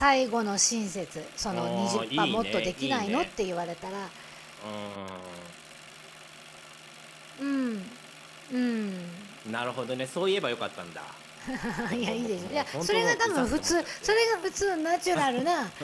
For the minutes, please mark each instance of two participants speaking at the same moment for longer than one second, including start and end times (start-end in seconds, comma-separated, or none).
1.5-3.3, 12.0-14.2